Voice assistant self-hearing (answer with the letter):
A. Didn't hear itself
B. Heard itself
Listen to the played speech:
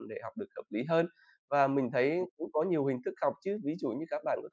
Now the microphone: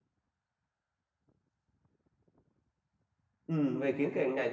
A